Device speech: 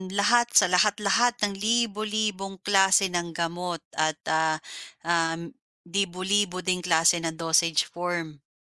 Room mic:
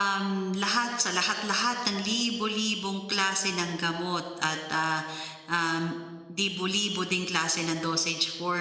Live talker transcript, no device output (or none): none